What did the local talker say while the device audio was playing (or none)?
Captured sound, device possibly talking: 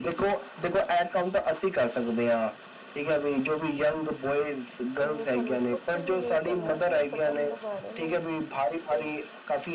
ਜਿਵੇਂ ਸਾਨੂੰ ਕੁਛ ਵੀ ਨਹੀਂ ਕੀ ਕਰਨਾ, ਸਿਰਫ ਬਟਨ ਦਬਾਣੇ ਨੇ ਤੇ